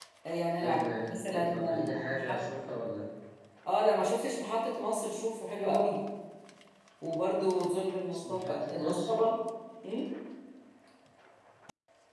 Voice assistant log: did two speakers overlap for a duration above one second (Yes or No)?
Yes